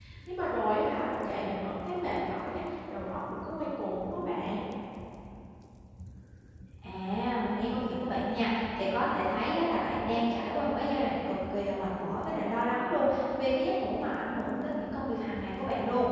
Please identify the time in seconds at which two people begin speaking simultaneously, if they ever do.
none

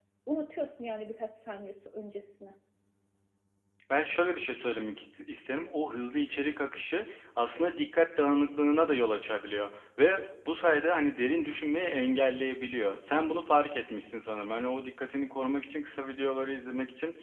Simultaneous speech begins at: none

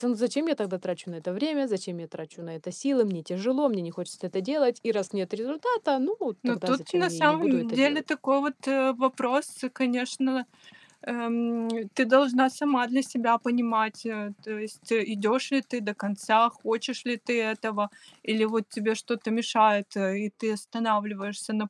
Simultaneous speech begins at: 6.4 s

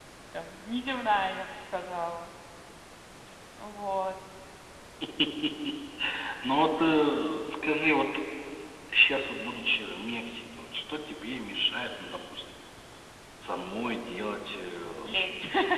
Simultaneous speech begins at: none

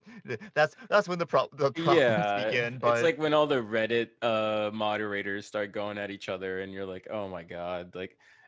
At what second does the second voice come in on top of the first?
1.8 s

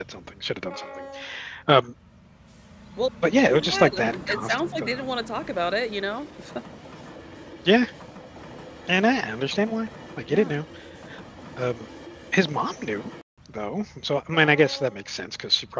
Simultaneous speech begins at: 3.5 s

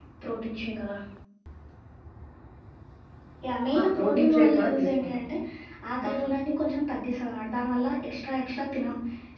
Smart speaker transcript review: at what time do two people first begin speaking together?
3.8 s

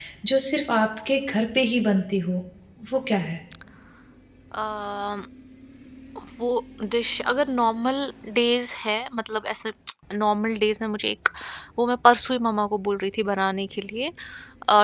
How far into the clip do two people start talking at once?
none

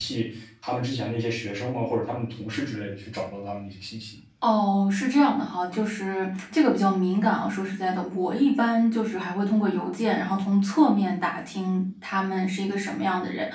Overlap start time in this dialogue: none

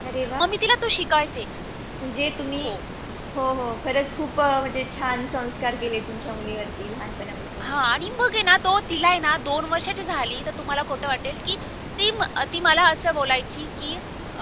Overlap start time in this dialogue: none

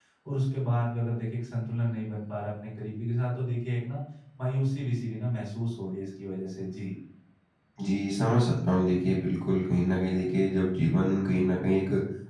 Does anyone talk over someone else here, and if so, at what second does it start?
none

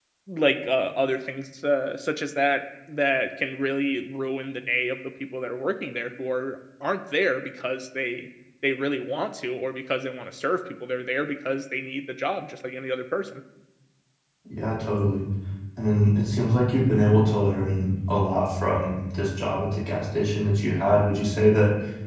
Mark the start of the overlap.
none

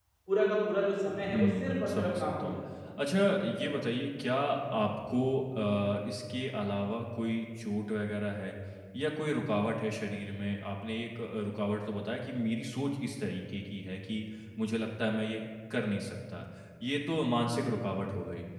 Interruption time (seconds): 1.1 s

